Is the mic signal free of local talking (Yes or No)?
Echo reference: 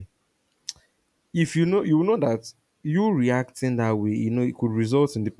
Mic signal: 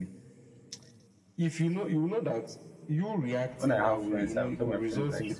No